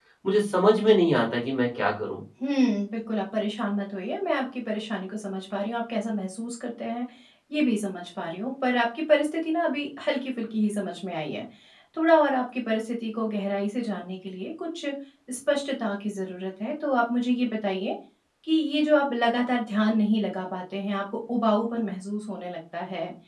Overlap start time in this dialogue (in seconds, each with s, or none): none